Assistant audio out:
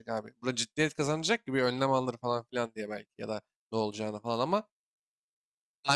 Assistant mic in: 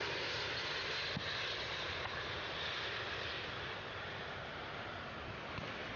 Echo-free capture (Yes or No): Yes